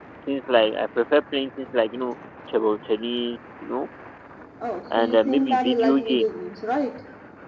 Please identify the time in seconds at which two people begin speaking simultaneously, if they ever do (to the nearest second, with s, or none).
5 s